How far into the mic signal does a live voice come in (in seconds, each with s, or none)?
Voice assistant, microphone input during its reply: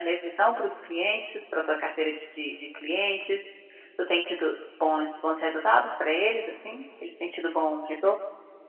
none